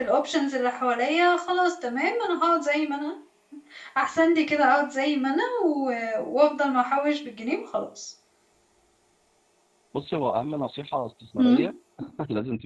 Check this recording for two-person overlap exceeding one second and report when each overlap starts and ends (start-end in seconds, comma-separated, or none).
none